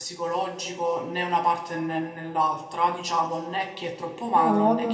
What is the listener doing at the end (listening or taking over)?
taking over